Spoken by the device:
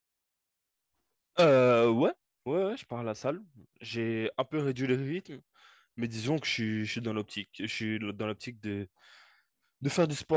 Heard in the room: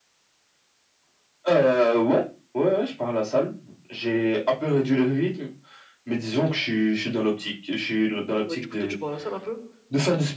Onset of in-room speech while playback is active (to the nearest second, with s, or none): 8 s